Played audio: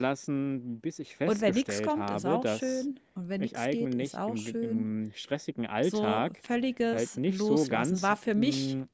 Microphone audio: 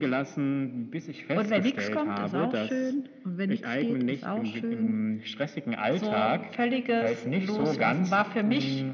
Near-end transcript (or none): none